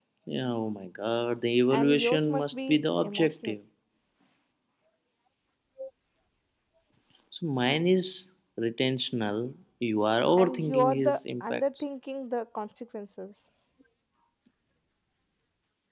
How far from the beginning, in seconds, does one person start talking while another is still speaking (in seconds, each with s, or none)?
1.7 s